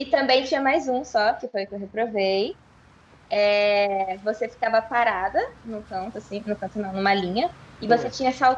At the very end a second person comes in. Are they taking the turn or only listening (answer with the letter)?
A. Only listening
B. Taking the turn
A